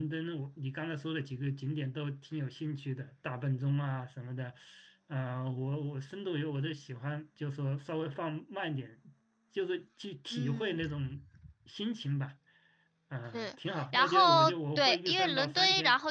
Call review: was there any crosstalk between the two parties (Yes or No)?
Yes